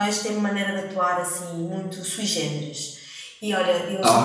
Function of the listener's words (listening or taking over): listening